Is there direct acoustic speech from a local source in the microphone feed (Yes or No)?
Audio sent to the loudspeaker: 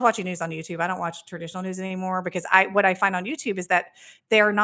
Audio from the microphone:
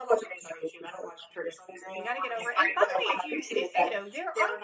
Yes